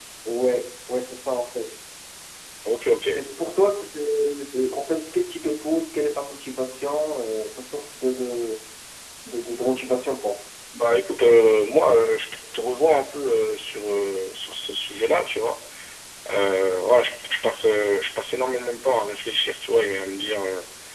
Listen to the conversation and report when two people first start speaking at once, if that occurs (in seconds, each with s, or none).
none